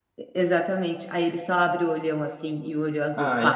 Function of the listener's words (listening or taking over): taking over